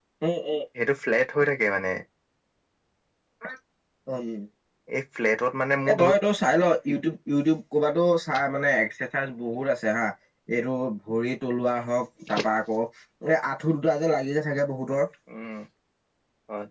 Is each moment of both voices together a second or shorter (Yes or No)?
Yes